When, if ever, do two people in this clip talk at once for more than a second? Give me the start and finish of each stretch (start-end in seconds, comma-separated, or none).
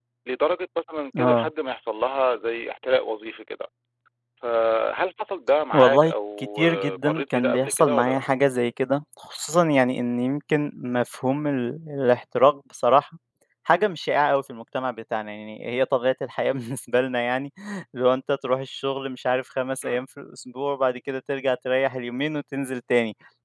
5.7-8.2